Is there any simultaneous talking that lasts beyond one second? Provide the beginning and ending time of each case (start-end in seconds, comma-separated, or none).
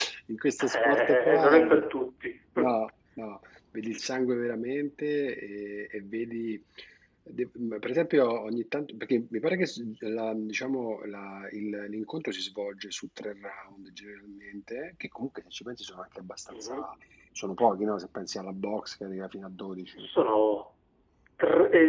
0.6-1.8